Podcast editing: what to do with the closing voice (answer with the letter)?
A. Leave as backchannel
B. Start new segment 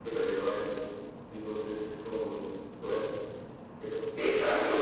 B